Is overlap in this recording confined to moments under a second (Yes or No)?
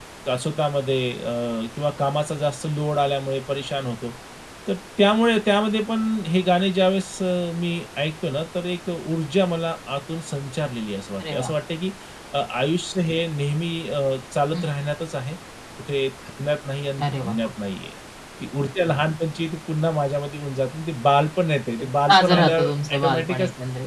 No